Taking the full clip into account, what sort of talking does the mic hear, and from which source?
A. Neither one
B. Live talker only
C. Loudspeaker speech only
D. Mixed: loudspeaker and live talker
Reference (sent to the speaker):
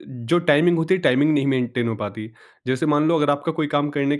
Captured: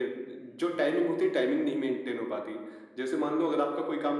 C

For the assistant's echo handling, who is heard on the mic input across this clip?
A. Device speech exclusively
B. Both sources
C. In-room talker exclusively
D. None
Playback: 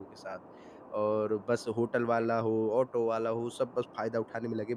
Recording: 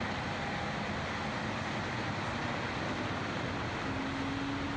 D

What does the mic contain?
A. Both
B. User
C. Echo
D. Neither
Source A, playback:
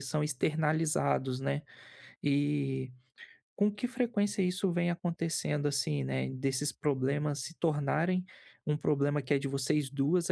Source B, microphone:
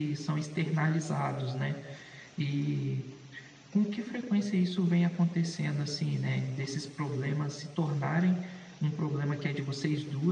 C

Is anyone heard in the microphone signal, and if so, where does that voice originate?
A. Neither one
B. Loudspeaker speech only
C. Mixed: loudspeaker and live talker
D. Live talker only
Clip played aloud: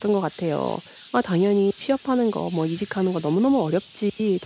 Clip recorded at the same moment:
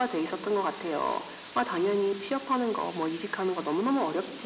B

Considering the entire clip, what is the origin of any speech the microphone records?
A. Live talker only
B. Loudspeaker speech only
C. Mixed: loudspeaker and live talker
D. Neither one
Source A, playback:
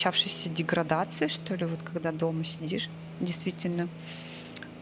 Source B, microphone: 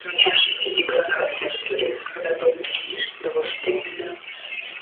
C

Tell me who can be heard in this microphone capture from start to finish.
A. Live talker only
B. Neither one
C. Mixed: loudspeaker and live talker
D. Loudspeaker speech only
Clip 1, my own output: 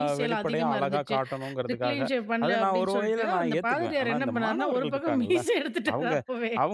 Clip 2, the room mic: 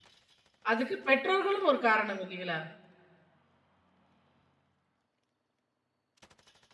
A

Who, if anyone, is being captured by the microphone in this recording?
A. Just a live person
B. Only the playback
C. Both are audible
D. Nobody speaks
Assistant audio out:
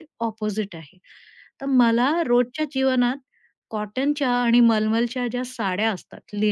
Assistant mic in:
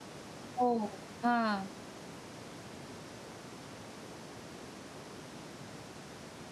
A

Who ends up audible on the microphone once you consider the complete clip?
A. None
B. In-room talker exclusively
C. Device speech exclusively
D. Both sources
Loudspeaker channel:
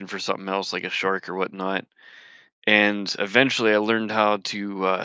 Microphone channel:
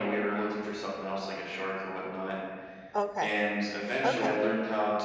D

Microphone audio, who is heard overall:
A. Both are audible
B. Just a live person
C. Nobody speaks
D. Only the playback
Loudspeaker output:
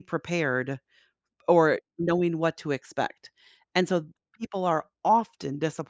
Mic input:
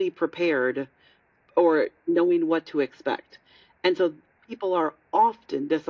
D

